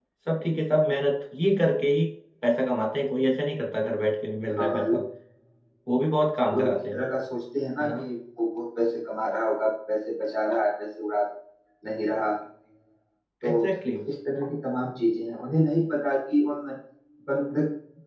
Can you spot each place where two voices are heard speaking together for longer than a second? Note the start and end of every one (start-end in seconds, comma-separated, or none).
none